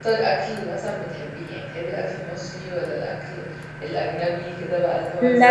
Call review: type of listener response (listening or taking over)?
taking over